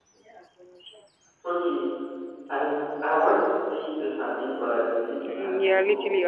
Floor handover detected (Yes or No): Yes